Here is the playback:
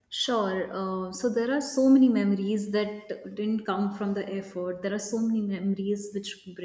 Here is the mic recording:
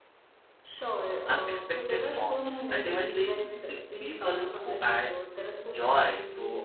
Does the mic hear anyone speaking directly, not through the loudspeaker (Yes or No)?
Yes